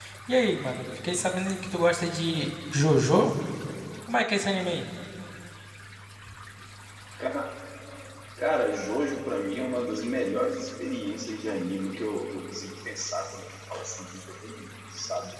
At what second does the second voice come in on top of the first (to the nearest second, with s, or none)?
none